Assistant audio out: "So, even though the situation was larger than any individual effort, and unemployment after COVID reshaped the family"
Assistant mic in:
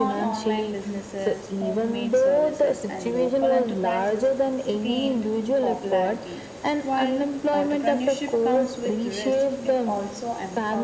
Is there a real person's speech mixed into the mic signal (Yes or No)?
Yes